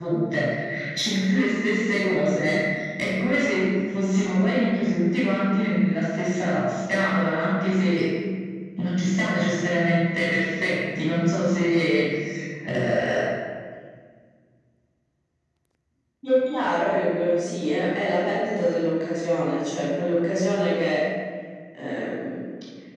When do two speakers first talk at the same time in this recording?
none

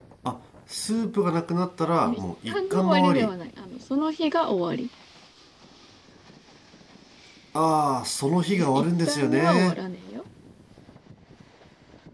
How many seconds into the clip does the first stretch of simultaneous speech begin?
2.0 s

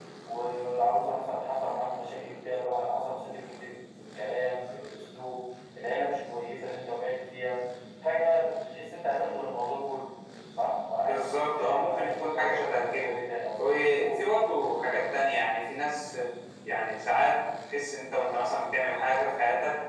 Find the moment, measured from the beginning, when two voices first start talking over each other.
11.0 s

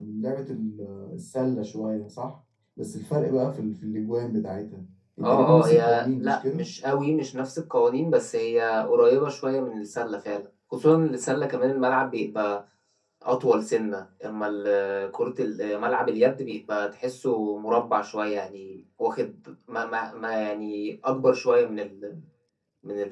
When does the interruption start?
5.2 s

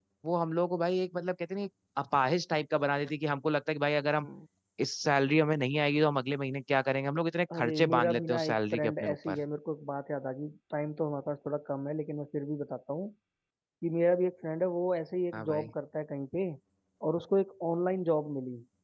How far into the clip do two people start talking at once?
7.5 s

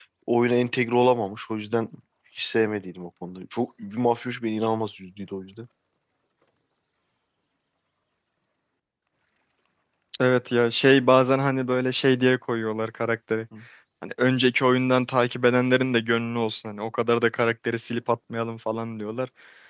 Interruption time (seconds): none

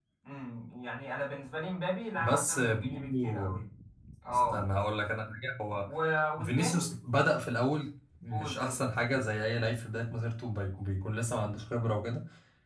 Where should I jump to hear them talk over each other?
2.2 s

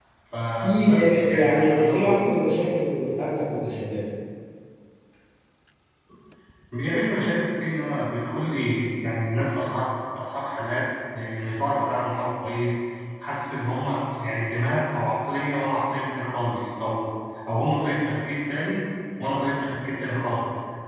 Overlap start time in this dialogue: 0.6 s

